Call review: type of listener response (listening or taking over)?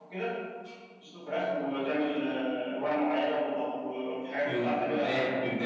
taking over